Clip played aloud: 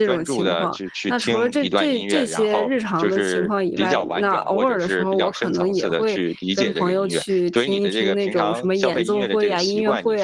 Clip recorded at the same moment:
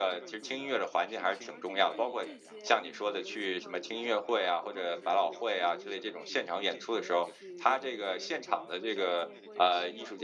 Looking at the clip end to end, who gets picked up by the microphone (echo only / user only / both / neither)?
both